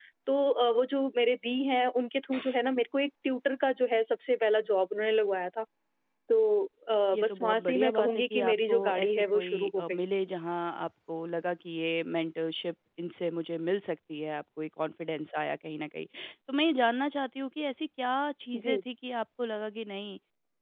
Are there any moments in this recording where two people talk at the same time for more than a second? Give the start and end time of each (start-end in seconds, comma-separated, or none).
7.1-10.0